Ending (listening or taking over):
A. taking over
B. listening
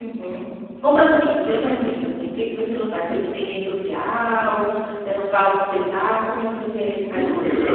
A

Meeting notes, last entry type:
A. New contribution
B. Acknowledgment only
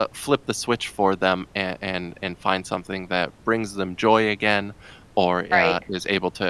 B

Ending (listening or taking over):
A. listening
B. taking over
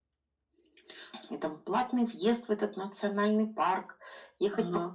A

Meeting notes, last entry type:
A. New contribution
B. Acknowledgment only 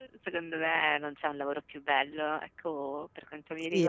A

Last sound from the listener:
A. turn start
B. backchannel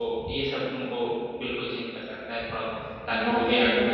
A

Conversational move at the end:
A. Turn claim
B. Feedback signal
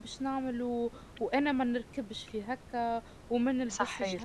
B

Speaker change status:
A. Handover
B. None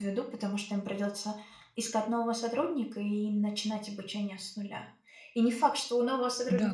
B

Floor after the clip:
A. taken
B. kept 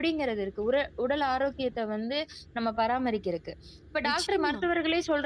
B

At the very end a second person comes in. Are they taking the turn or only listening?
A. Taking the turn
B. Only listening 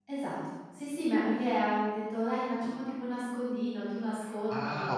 A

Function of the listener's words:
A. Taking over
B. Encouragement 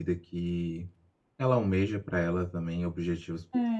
A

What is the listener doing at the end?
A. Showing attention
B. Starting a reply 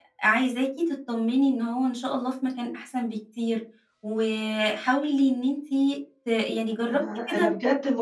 B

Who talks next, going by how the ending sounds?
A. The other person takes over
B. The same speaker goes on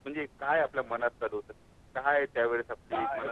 A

